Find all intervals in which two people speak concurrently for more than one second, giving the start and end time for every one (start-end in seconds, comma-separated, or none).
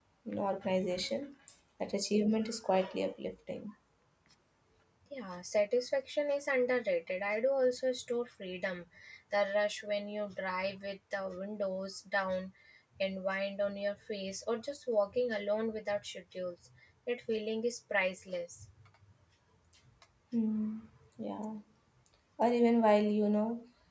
none